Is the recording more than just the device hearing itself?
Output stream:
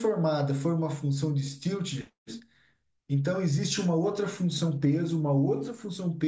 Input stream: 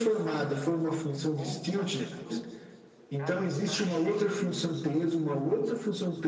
Yes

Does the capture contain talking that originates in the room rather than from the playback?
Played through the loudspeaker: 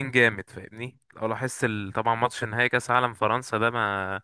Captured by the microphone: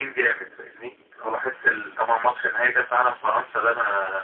No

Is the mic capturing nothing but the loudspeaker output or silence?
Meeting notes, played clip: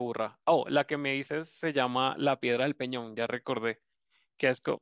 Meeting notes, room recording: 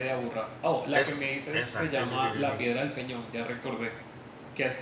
No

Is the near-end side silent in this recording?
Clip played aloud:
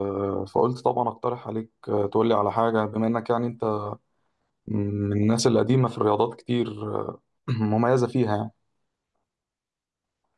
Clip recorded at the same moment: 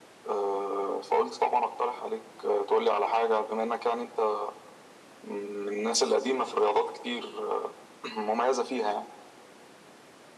Yes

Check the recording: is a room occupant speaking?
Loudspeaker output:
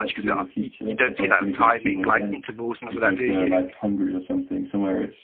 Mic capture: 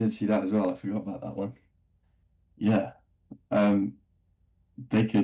Yes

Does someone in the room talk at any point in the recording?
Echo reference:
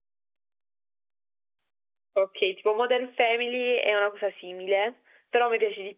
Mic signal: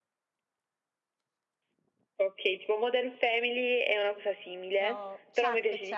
Yes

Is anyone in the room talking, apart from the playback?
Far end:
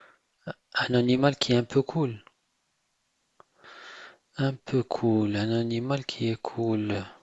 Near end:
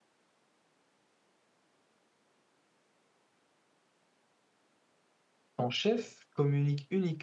Yes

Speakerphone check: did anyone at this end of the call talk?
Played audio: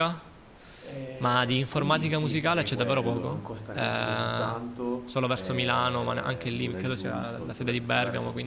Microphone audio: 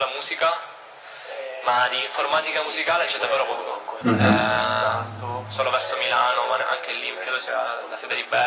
Yes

